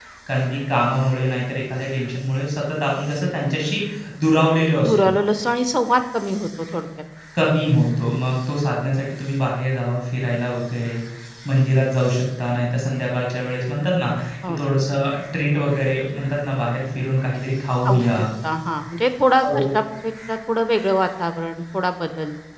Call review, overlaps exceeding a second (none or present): none